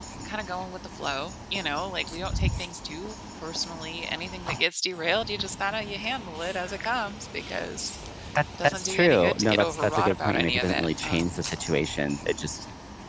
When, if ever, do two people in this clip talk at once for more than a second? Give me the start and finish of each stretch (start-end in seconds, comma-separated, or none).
8.6-11.5